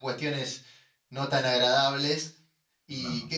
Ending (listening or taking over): listening